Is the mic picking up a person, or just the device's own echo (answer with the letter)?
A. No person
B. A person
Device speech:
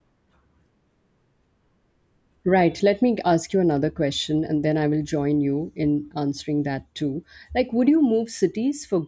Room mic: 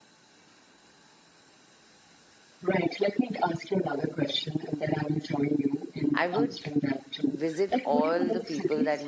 B